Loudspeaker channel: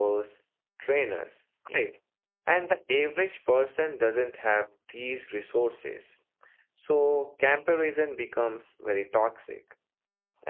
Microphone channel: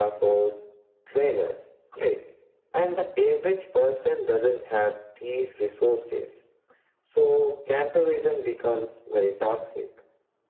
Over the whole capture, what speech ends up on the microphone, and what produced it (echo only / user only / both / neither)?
echo only